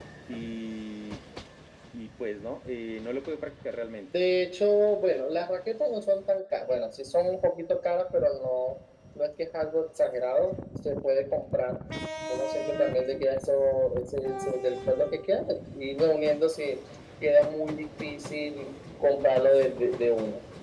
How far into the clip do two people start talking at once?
none

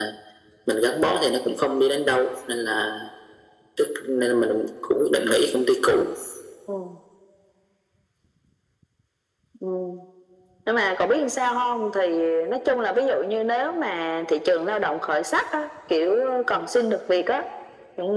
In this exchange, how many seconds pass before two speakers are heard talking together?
none

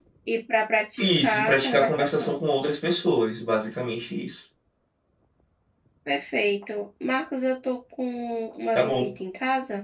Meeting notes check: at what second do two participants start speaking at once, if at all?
1.0 s

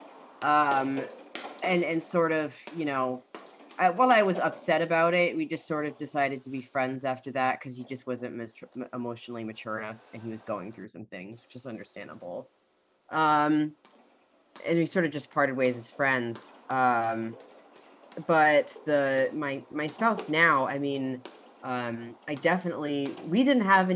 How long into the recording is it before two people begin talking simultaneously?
none

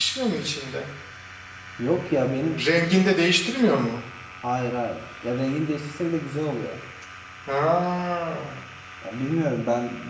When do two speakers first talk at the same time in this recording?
none

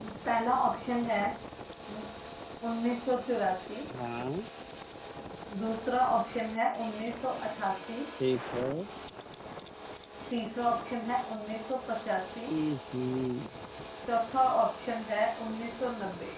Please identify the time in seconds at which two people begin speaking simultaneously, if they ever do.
none

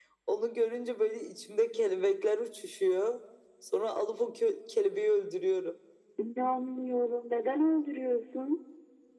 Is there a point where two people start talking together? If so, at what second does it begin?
none

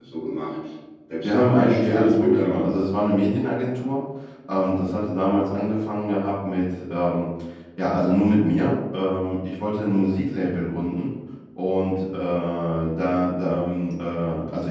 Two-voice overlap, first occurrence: 1.2 s

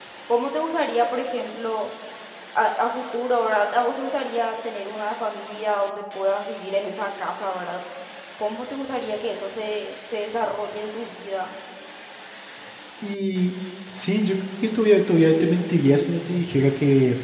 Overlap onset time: none

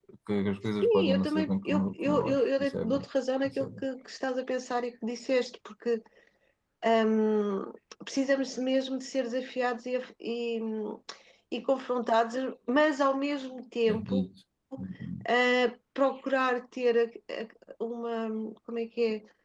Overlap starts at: 0.8 s

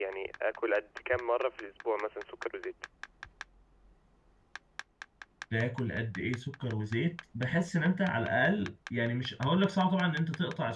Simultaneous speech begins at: none

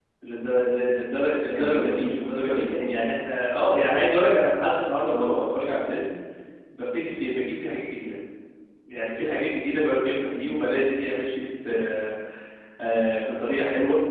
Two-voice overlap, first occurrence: 1.6 s

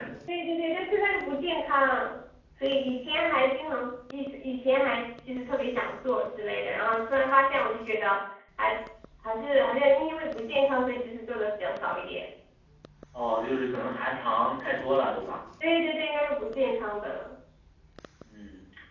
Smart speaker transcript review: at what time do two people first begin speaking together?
none

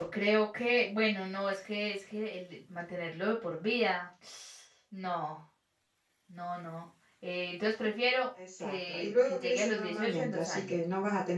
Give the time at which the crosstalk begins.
8.4 s

